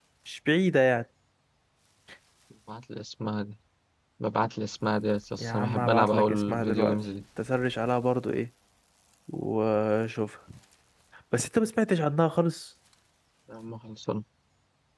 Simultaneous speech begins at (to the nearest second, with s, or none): 5 s